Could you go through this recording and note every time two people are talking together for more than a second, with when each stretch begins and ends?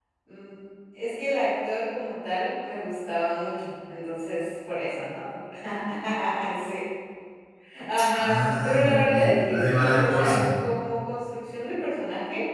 8.1-10.4

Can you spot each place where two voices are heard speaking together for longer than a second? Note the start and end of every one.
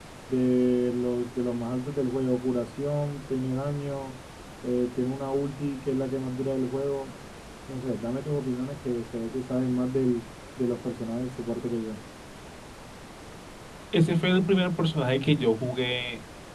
none

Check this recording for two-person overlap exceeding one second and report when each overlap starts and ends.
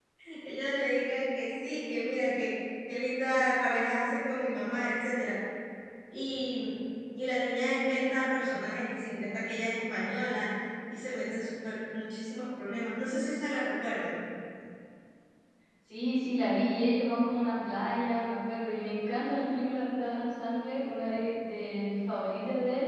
none

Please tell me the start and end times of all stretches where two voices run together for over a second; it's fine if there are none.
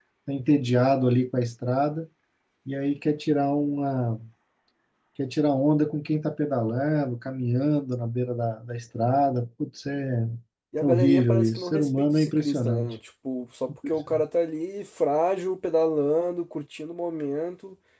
10.8-12.9

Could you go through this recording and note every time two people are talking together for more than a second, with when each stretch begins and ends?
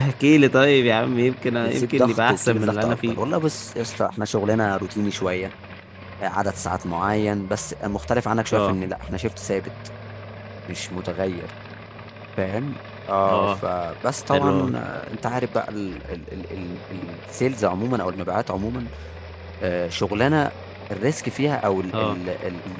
1.6-3.2

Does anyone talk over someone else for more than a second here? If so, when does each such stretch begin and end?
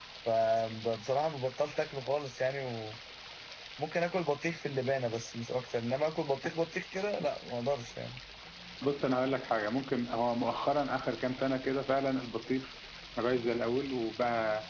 none

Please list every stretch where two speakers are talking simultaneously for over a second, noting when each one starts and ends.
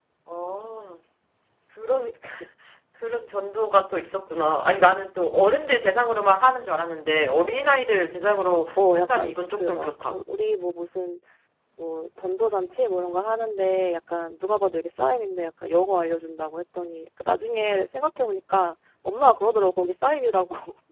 8.8-10.2

